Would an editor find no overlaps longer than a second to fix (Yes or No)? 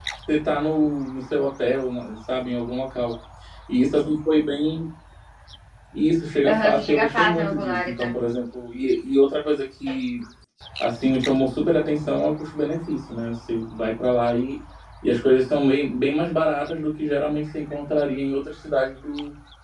No